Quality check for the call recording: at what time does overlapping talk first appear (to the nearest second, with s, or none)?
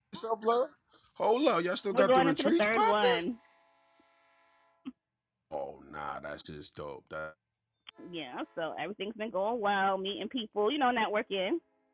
2 s